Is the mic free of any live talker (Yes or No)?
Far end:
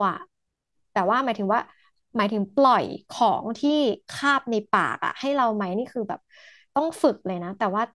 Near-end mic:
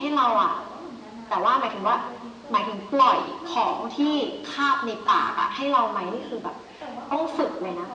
No